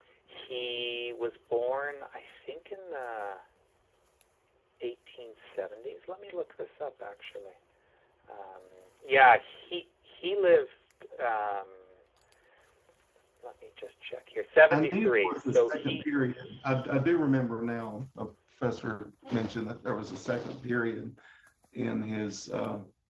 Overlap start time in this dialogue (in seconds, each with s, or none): 14.7 s